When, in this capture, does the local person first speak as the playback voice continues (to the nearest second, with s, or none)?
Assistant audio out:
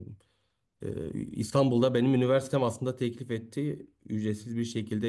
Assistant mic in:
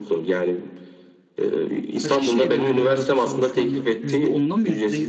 2 s